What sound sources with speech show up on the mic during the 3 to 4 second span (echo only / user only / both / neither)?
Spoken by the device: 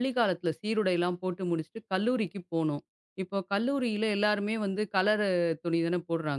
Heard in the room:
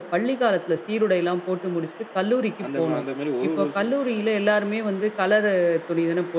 both